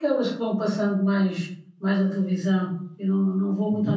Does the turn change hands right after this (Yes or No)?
No